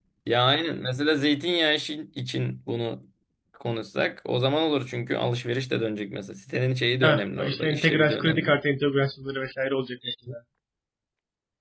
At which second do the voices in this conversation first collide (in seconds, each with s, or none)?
7.0 s